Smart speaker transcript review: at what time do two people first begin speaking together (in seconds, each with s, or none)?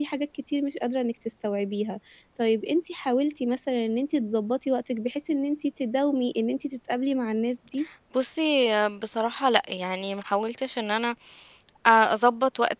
none